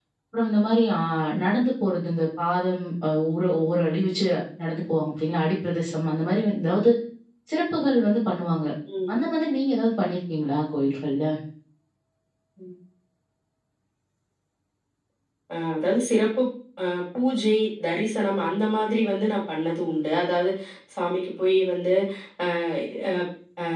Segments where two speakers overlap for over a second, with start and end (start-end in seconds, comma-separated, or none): none